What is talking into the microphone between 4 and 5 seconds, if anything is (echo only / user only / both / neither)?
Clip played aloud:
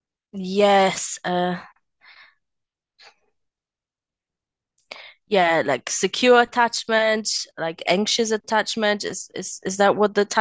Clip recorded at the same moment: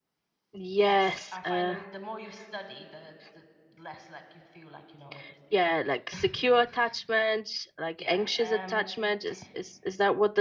user only